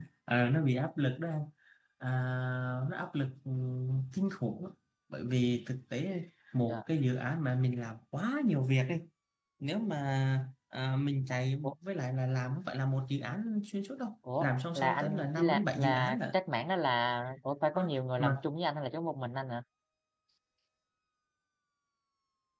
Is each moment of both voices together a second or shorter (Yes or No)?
No